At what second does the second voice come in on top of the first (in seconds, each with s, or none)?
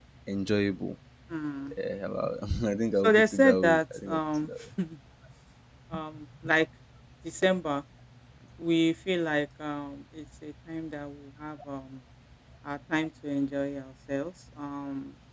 3.0 s